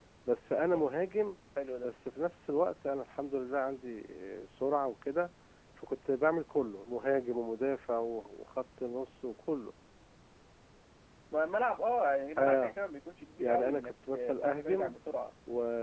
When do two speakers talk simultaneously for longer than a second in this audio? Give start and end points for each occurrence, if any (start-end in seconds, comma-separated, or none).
13.4-14.9